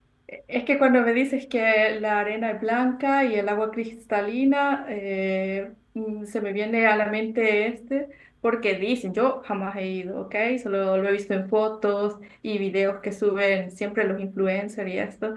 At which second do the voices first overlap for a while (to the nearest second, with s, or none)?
none